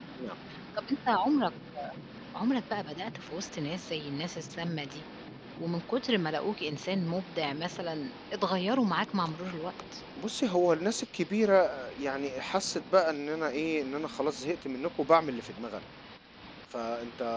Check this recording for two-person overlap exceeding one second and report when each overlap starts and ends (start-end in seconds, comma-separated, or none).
none